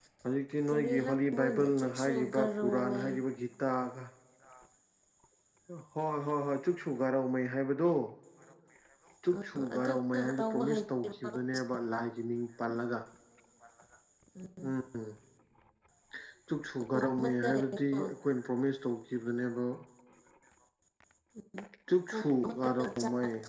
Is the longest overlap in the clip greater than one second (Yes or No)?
Yes